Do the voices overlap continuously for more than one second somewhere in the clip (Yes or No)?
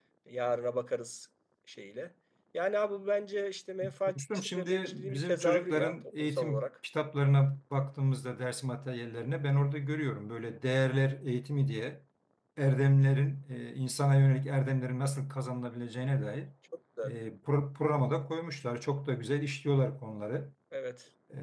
Yes